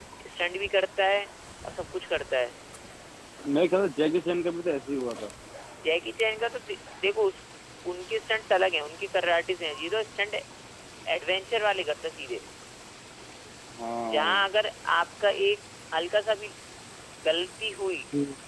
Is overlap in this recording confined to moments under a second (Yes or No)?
Yes